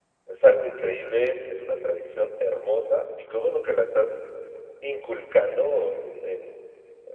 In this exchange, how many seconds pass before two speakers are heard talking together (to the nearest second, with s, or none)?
none